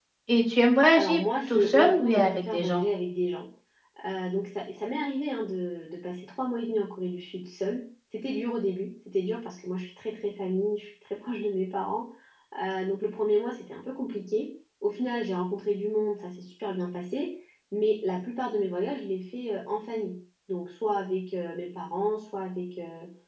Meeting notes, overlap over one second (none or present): present